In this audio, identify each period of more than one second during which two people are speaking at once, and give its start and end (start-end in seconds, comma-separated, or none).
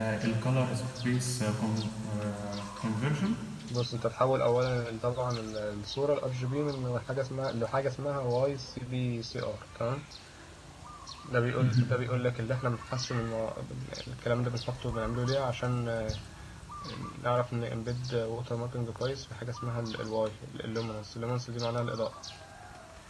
none